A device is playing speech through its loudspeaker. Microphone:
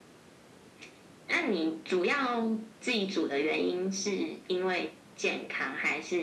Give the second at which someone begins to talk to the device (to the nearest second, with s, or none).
none